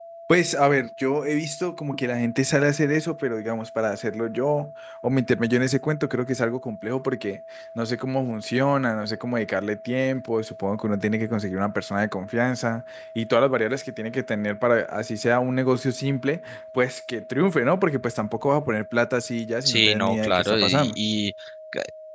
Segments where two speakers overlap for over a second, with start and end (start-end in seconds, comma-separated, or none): 19.6-20.9